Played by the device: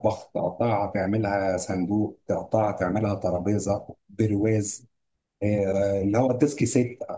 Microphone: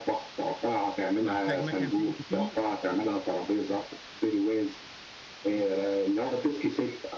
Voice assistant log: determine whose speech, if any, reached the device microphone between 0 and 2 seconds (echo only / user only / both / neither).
both